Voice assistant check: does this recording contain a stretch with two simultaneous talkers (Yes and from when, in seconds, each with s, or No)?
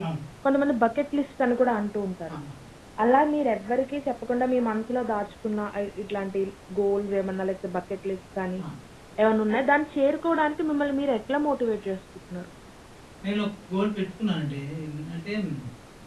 No